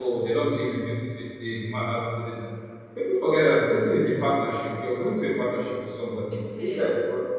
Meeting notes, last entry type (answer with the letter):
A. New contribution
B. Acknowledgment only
B